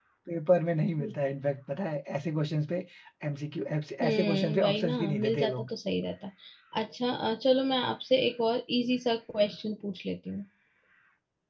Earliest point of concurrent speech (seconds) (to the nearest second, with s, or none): 4 s